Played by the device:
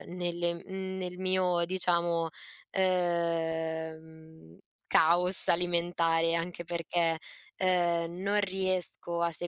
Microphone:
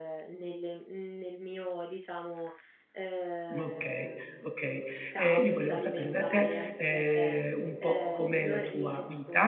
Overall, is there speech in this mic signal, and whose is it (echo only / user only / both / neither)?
both